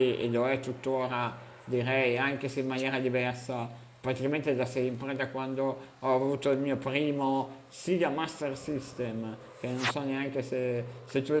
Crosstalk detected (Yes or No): No